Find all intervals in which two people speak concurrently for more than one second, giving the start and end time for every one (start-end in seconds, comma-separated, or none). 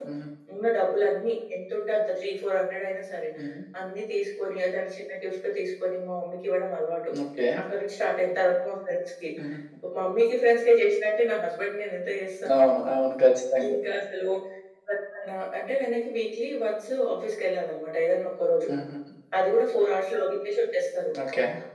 none